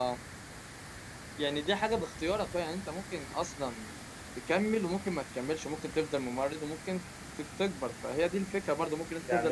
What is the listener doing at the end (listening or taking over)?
taking over